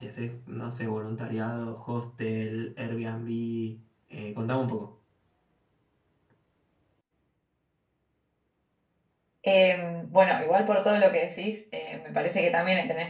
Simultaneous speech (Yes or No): No